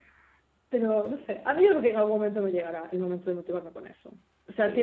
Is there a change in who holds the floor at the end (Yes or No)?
Yes